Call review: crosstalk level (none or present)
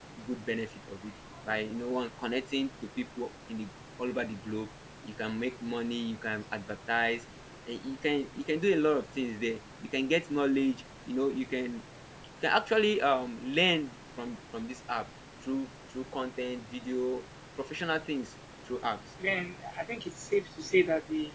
none